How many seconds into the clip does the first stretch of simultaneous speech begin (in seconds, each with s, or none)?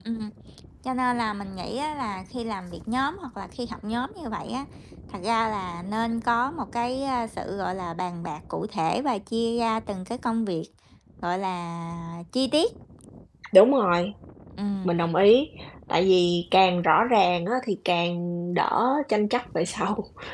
none